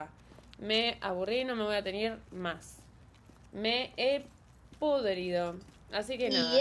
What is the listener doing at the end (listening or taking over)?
taking over